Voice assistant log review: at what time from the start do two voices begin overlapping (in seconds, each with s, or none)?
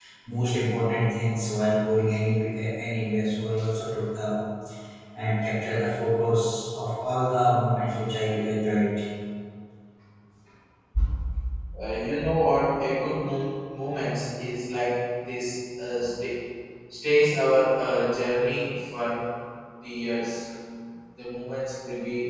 none